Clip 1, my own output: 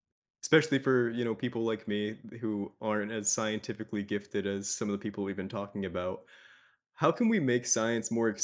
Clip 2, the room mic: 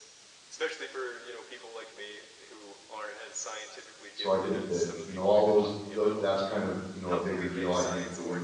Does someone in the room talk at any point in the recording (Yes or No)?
Yes